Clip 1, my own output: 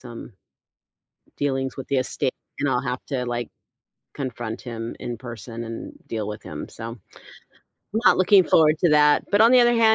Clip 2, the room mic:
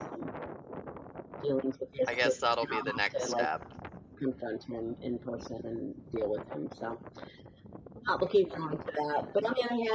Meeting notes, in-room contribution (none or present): present